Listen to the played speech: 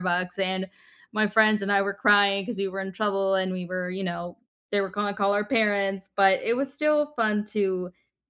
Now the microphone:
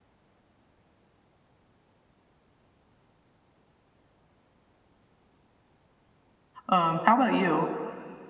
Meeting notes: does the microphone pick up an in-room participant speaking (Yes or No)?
Yes